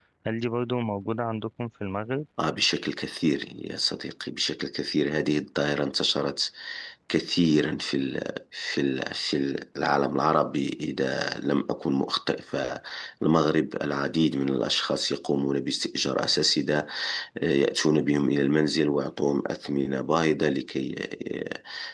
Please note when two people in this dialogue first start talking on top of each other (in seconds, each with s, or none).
none